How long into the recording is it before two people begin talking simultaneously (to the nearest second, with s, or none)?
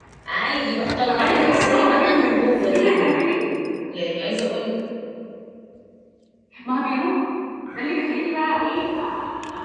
1 s